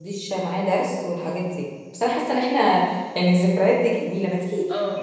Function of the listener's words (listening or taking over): listening